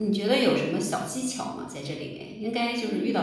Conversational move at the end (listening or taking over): listening